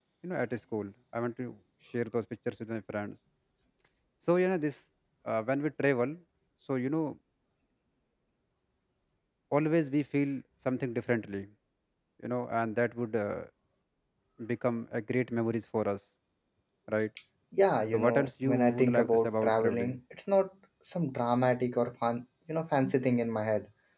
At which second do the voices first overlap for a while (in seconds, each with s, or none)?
17.9 s